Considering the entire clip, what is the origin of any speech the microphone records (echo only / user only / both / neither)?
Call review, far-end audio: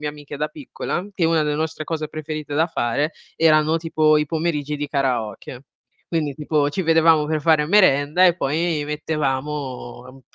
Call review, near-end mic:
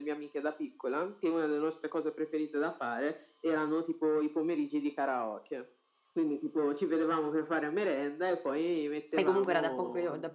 both